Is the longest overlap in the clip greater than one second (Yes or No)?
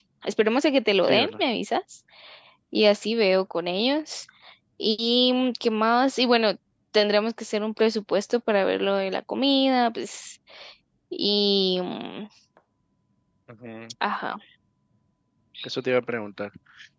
No